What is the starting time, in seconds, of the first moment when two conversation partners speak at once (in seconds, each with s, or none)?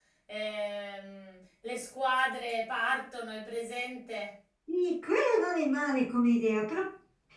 none